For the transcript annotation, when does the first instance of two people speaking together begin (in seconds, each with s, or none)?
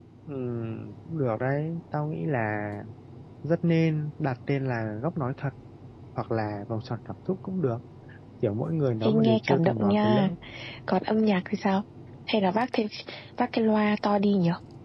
9.0 s